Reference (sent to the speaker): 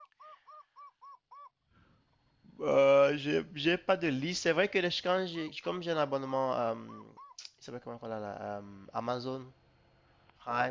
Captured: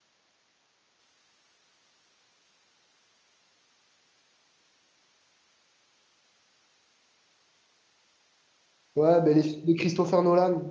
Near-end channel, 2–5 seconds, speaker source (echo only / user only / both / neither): neither